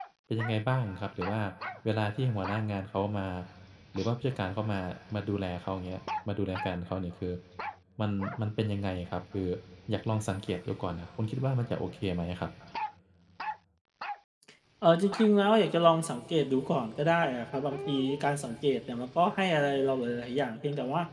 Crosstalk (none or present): none